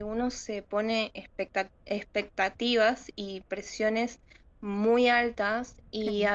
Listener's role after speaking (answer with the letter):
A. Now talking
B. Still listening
B